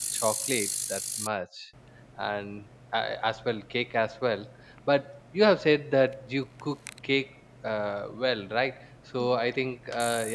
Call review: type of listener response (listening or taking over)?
listening